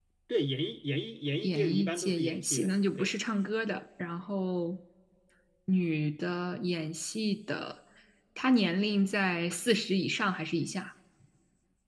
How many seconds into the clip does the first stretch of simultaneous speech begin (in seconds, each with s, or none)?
1.4 s